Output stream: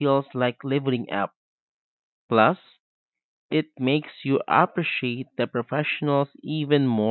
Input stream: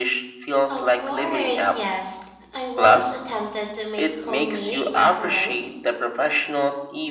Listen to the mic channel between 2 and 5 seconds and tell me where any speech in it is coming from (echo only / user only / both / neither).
both